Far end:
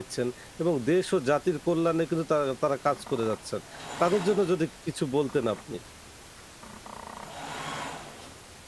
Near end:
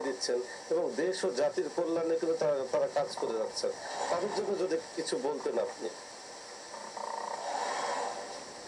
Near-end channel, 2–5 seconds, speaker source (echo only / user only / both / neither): echo only